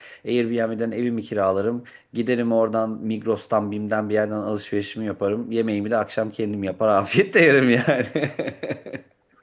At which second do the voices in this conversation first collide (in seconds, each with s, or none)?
none